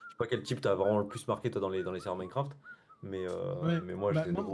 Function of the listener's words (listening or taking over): taking over